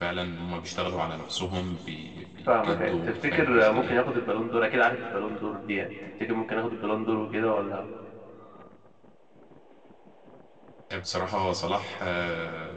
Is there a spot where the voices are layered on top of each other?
Yes, from 2.5 s

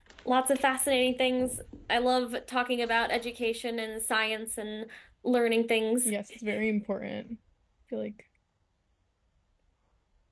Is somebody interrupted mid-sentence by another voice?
No

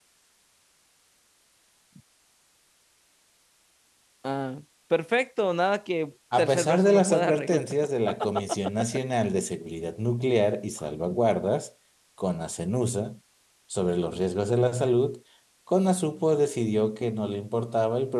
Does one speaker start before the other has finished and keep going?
Yes, from 6.3 s

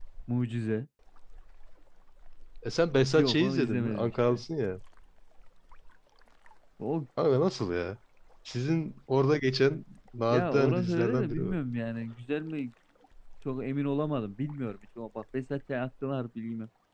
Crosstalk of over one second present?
Yes, from 3.1 s

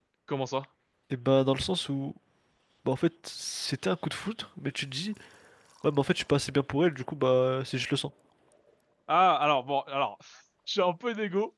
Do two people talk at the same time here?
No

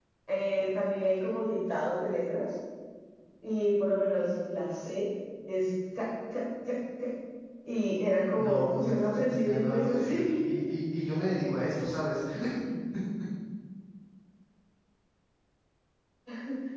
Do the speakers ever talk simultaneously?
Yes, from 8.4 s

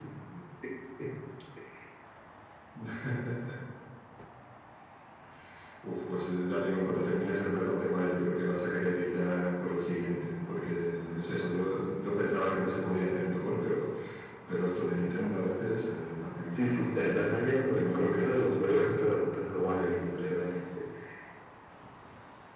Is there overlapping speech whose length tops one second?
Yes, from 16.6 s

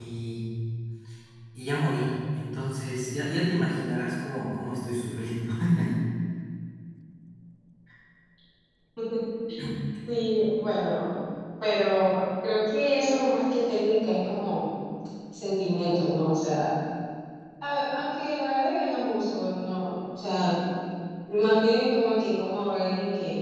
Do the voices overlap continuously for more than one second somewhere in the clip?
No

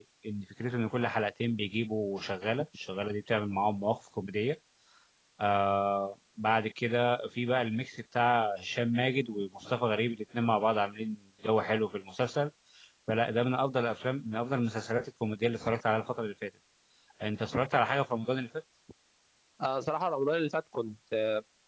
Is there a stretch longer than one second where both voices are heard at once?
No

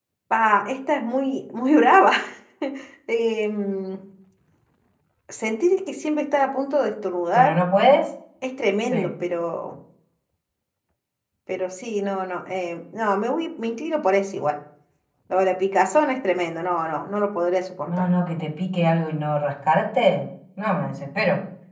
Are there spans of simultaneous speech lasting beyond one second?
No

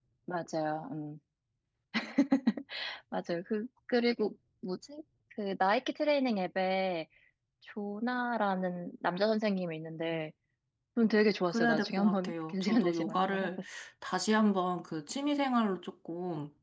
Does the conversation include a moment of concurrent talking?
Yes, from 11.5 s

